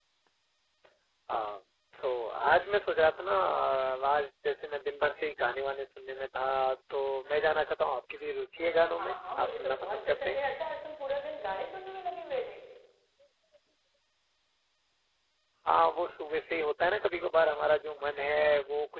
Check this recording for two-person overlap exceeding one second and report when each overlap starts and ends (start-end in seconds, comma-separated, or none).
9.0-10.4